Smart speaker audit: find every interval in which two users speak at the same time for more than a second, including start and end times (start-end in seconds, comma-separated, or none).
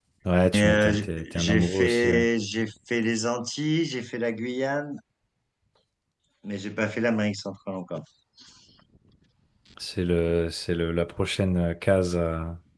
0.5-2.2